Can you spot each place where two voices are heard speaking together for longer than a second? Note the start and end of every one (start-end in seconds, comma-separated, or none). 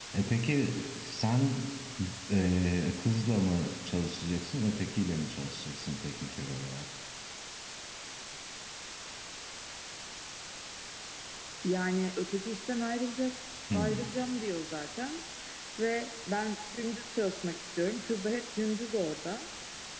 none